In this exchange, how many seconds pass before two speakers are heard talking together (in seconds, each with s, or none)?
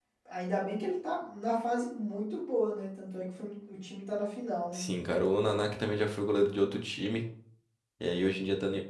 none